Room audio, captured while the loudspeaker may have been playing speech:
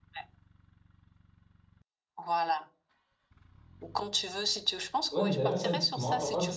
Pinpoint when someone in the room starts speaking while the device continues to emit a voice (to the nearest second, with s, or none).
5 s